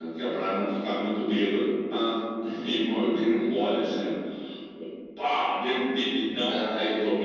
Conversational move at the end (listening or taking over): listening